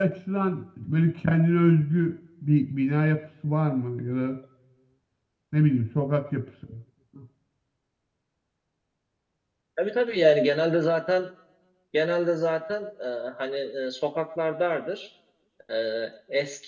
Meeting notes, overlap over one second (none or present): none